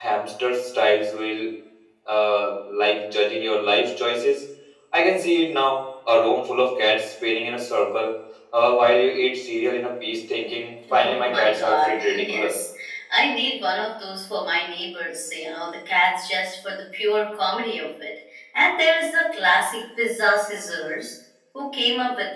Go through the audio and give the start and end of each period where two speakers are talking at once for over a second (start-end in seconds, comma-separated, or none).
10.9-12.5